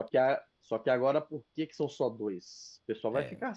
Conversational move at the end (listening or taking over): listening